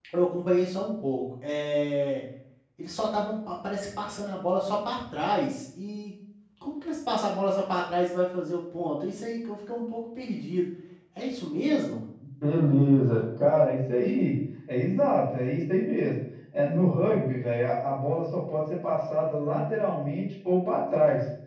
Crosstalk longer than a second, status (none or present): none